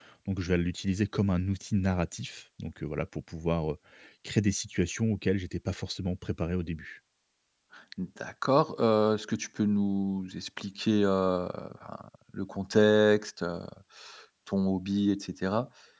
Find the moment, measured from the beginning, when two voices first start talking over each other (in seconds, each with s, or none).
none